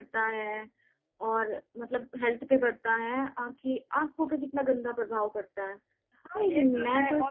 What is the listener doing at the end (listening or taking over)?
taking over